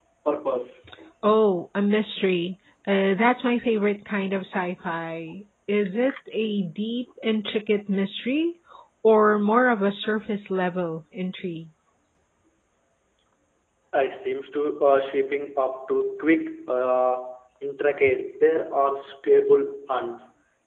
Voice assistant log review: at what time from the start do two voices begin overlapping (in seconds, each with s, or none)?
none